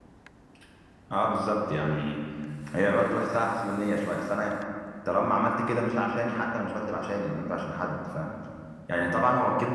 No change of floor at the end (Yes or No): Yes